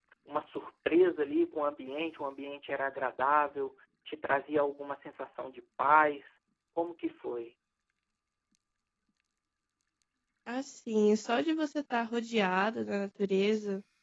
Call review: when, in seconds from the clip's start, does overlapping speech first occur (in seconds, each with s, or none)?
none